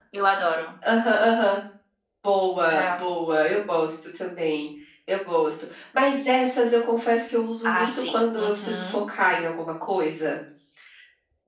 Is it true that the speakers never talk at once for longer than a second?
No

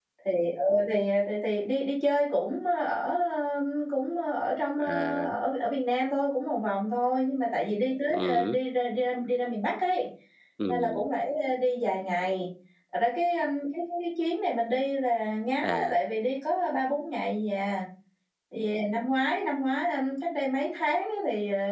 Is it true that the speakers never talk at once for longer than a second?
Yes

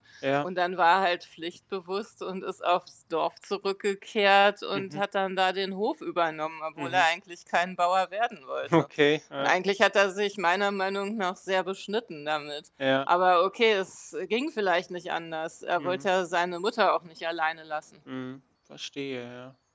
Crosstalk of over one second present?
No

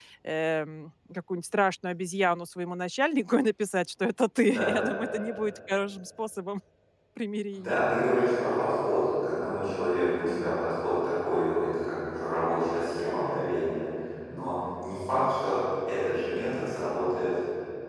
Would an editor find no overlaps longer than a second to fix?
Yes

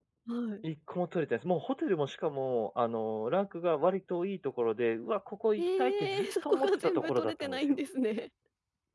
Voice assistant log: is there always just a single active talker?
No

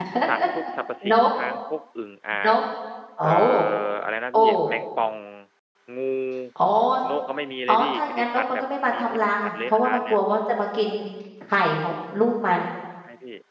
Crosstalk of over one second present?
Yes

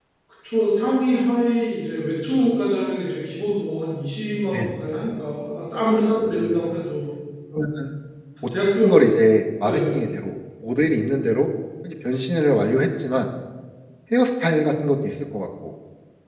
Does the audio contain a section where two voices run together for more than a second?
No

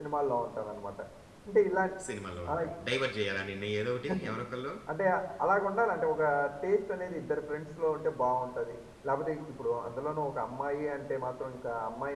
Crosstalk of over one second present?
No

